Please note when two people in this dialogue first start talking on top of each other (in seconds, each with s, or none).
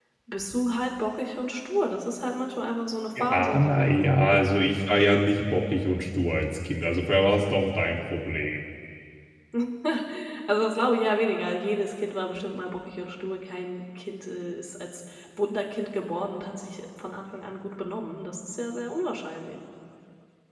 3.1 s